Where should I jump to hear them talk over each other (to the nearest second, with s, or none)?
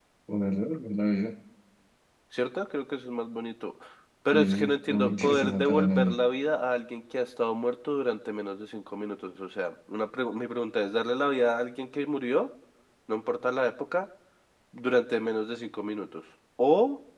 4 s